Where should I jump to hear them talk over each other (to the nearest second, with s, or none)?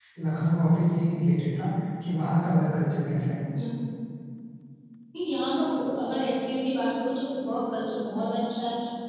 none